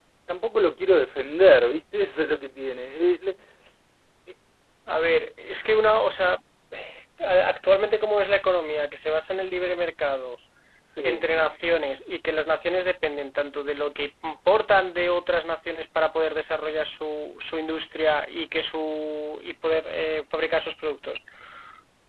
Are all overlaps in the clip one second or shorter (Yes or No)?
Yes